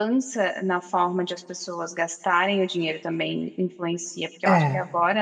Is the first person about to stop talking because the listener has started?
No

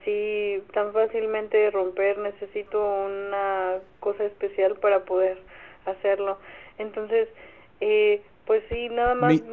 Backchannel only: Yes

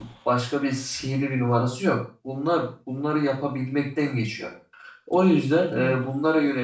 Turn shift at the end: No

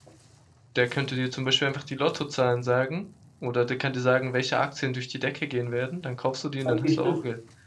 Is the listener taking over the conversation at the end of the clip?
Yes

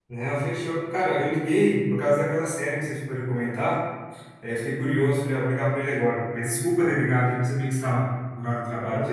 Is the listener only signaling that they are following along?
No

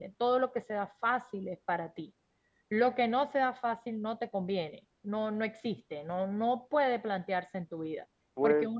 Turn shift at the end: No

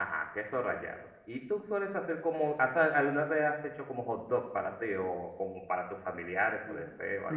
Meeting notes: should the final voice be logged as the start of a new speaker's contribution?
Yes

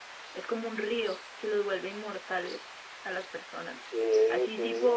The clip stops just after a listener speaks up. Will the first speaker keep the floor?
Yes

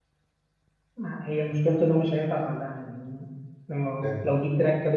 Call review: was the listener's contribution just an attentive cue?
Yes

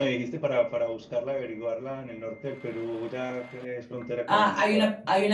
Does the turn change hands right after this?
Yes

